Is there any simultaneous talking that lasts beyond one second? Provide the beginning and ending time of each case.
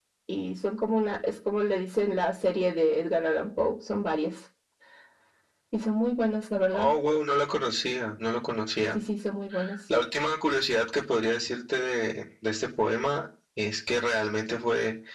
none

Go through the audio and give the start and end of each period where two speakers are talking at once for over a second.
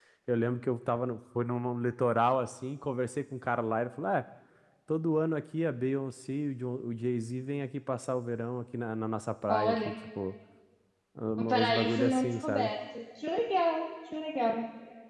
11.4-12.7

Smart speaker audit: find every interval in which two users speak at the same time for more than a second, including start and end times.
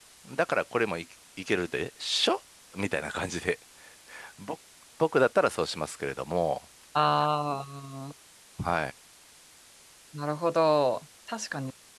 none

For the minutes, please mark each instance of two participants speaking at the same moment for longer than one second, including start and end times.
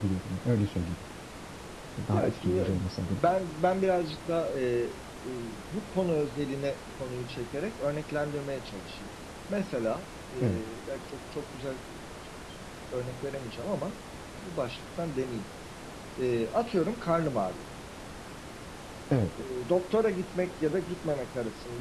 2.1-3.4

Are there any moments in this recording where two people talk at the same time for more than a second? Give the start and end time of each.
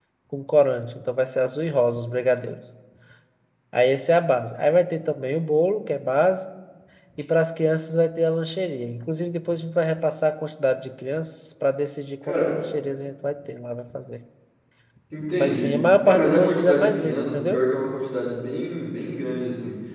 15.4-17.6

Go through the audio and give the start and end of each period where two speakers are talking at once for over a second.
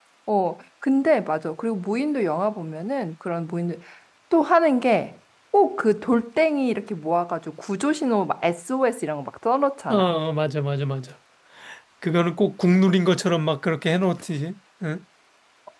none

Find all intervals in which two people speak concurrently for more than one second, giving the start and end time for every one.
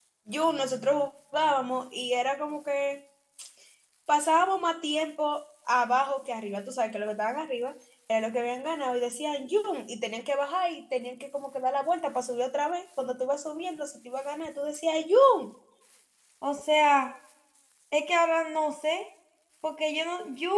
none

